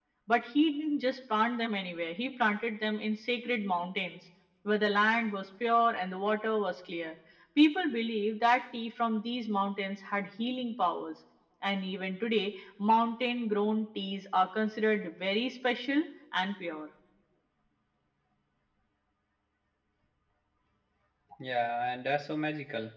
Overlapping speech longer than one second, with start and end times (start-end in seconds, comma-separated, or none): none